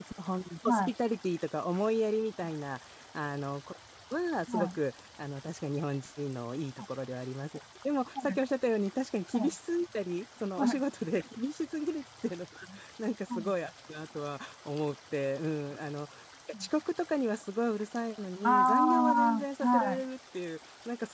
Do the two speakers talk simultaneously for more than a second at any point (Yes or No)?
Yes